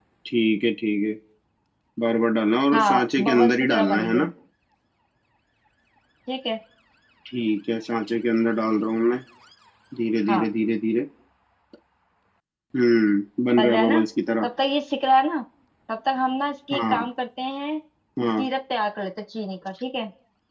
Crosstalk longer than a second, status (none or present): present